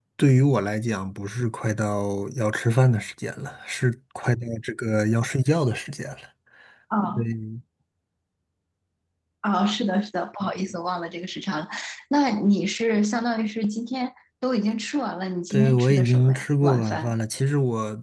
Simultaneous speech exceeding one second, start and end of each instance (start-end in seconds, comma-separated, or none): 15.5-17.1